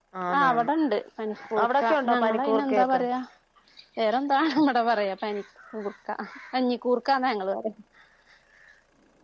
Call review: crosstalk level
present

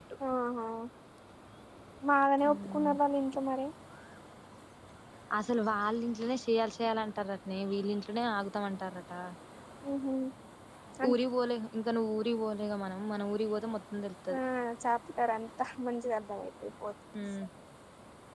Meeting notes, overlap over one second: none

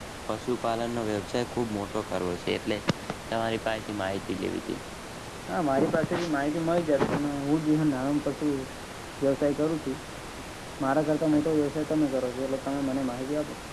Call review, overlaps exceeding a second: none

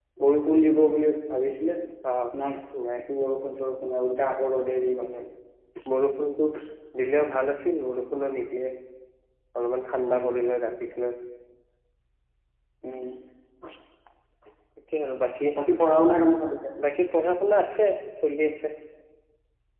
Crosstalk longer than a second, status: none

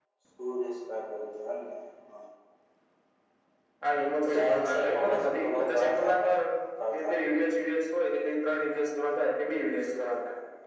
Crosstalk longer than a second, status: present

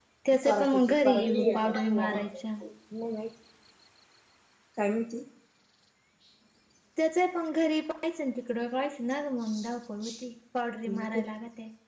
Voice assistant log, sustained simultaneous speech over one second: present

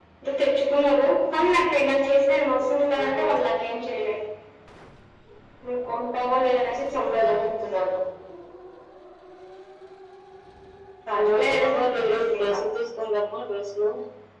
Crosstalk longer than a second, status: present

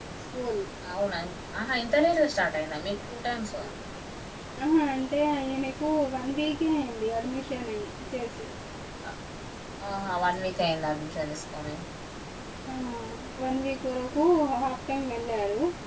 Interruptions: none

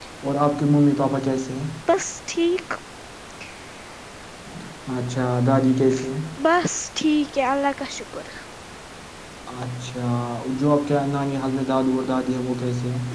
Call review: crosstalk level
none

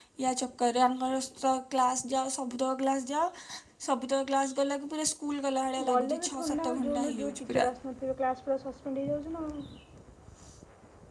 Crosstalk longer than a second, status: present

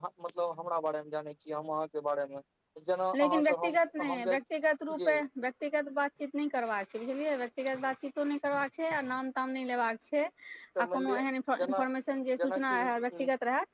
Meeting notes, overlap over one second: present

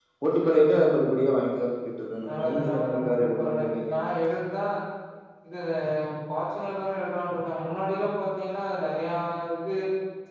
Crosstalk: present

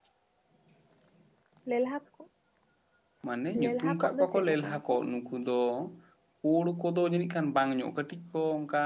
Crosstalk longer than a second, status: present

